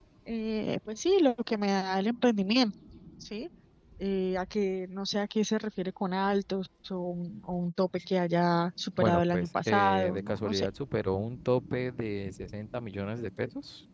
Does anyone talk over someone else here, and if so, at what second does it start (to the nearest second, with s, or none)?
9 s